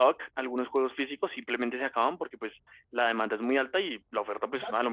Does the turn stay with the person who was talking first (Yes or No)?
Yes